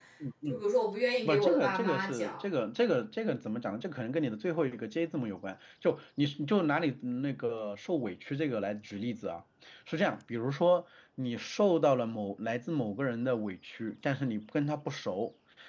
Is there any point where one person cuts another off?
Yes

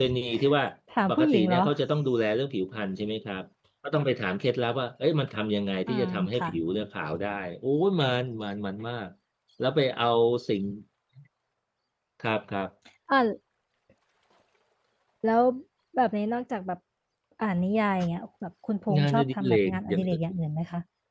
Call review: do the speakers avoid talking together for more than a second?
No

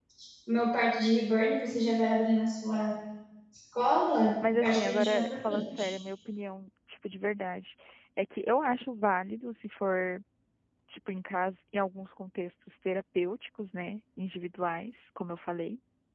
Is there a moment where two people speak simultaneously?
Yes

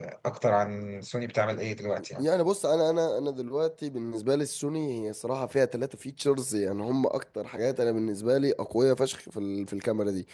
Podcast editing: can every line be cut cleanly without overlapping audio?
Yes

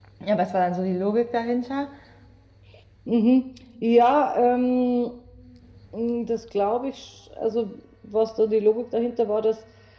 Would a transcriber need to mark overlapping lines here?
No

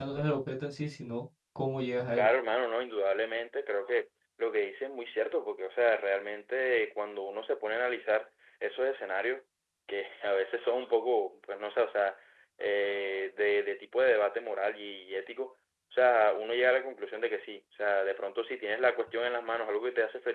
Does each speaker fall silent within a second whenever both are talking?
Yes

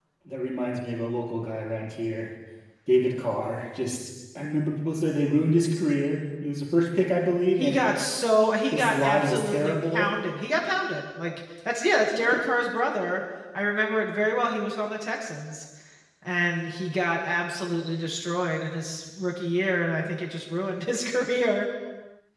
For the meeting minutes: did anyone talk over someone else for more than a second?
Yes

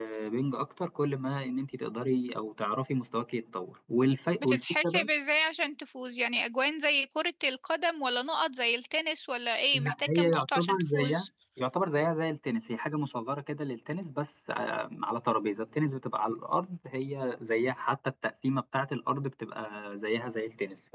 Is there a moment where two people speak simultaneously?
Yes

